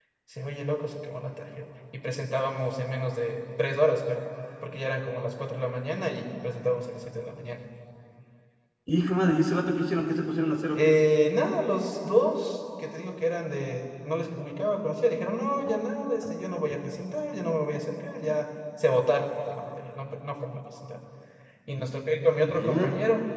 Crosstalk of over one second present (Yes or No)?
No